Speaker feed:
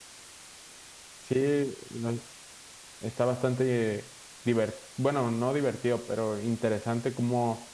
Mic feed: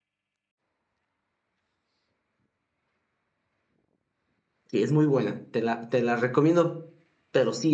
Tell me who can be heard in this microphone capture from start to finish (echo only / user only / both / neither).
user only